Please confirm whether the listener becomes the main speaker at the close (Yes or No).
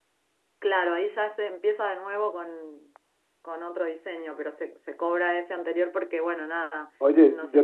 Yes